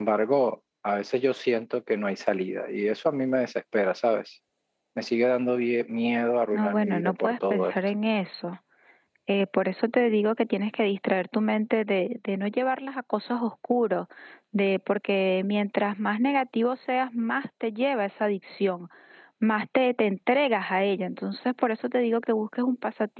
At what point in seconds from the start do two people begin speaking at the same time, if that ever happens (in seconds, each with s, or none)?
6.5 s